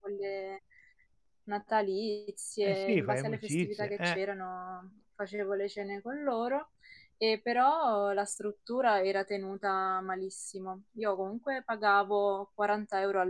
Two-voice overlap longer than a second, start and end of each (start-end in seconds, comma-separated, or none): 2.6-4.2